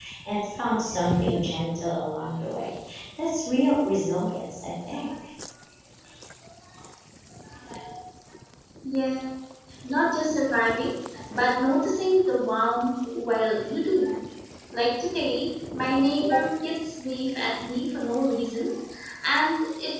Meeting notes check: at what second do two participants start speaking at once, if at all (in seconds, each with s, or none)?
none